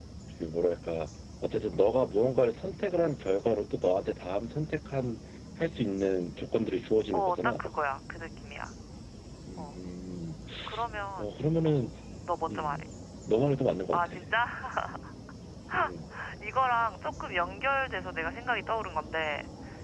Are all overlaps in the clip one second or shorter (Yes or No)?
Yes